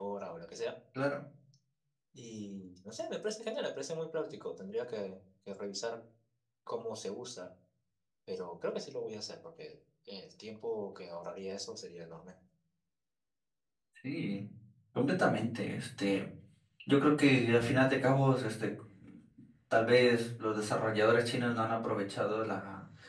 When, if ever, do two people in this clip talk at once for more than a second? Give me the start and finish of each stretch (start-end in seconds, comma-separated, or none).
none